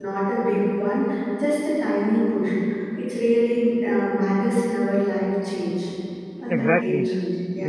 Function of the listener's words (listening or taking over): taking over